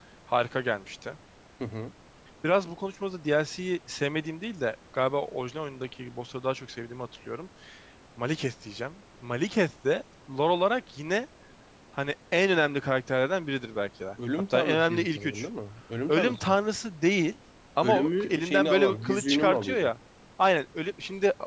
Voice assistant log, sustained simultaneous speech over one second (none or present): present